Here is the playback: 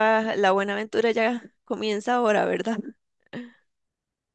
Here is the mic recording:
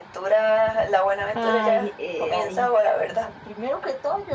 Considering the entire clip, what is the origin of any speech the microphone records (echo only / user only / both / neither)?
both